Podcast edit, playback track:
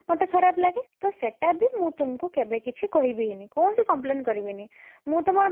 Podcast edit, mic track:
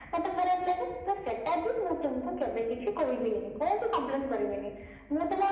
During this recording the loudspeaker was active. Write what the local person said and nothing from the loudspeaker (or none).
none